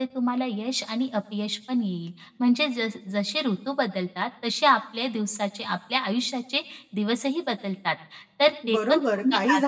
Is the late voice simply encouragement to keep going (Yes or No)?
No